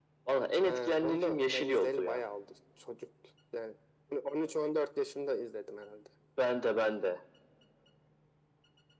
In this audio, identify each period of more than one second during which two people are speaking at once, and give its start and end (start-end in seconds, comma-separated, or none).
0.6-2.2